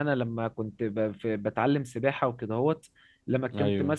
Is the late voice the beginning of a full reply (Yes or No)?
No